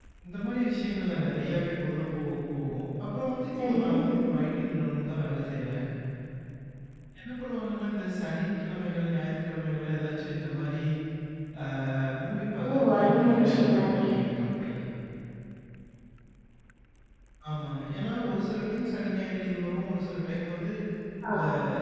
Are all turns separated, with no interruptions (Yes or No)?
No